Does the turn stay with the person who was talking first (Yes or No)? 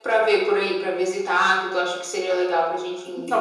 No